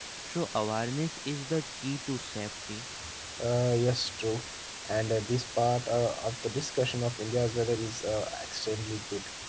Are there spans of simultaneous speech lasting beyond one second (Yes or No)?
No